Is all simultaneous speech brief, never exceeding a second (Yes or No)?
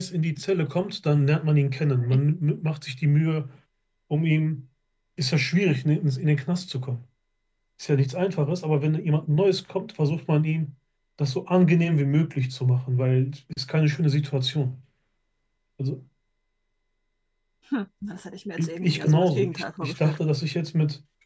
No